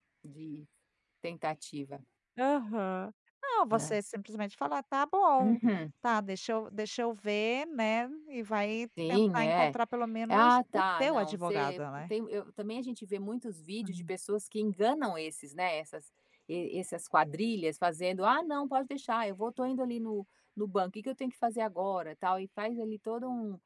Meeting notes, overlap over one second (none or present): present